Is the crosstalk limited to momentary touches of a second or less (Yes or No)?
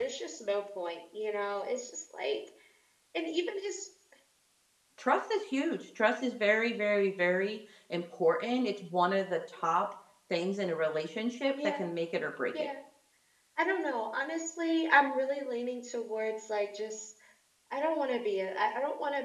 Yes